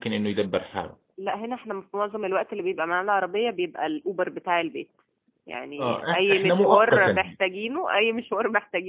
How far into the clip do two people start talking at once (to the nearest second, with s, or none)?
6 s